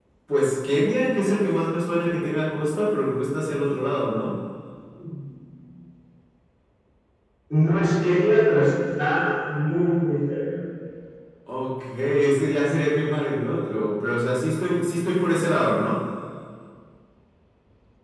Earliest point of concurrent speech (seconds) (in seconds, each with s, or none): none